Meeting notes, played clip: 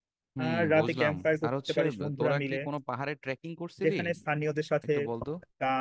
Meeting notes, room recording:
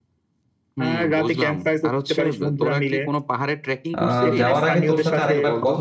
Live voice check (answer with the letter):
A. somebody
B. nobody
A